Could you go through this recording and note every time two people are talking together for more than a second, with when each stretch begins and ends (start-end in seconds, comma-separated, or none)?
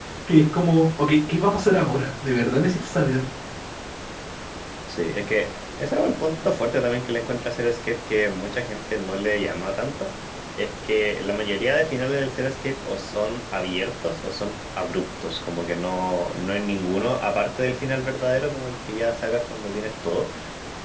none